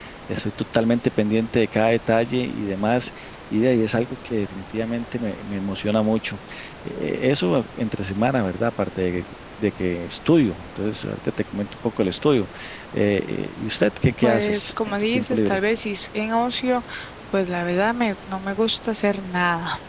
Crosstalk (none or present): present